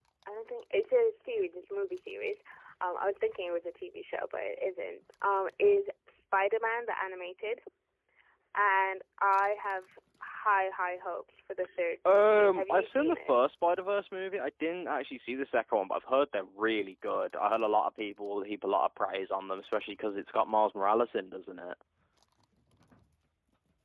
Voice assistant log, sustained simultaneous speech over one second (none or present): present